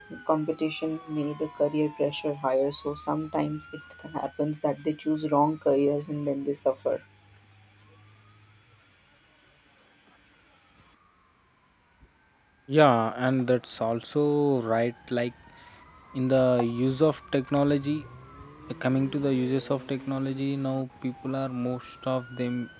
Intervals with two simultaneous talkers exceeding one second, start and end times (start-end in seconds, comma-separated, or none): none